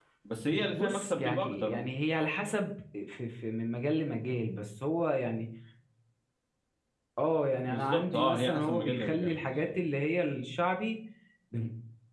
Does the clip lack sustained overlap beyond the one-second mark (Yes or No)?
No